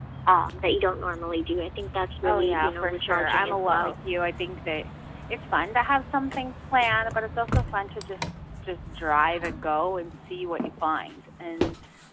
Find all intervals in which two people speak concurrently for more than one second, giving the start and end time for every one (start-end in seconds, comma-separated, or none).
2.2-3.9